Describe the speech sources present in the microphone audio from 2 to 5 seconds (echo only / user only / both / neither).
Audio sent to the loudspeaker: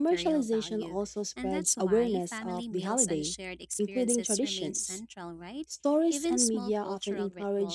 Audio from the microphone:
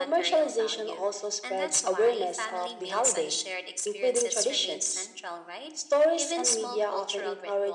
echo only